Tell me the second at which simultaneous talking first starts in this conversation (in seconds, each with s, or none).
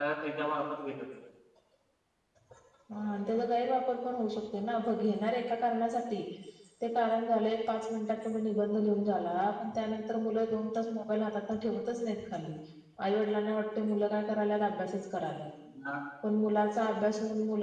none